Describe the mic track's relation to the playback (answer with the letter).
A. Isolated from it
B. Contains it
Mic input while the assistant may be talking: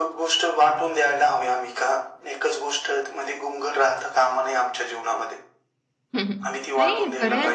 B